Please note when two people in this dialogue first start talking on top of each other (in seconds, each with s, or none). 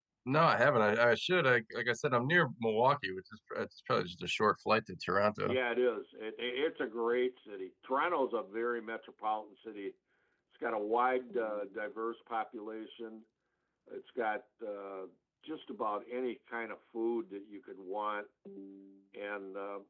none